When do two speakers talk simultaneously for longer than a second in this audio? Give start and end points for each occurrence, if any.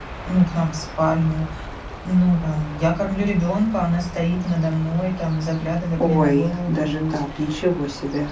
6.0-7.2

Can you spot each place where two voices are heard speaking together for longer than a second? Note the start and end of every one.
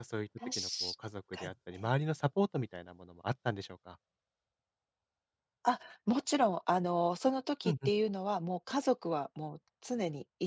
none

